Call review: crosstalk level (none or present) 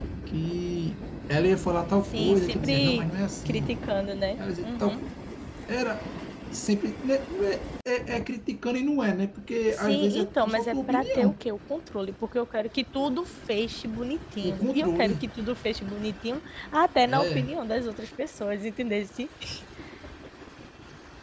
present